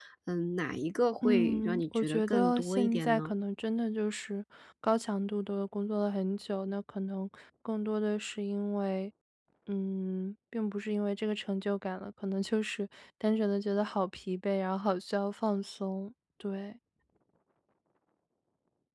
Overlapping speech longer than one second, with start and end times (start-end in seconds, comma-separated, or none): 1.2-3.3